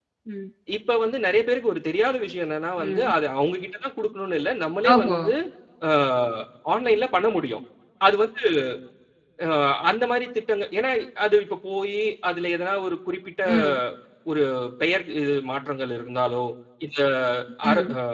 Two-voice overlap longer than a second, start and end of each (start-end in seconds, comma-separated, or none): none